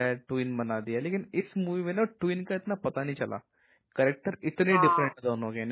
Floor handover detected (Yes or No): No